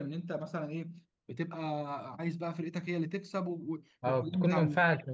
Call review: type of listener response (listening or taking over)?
taking over